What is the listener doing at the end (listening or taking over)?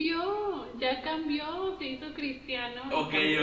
taking over